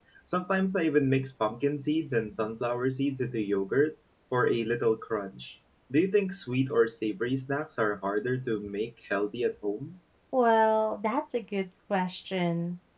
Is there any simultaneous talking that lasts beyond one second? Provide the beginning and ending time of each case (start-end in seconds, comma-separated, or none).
none